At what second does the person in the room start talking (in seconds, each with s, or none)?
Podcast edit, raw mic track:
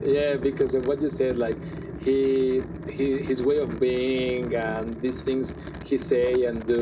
none